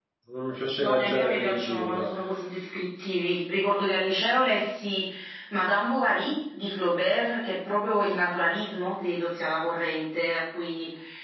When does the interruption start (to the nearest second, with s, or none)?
1 s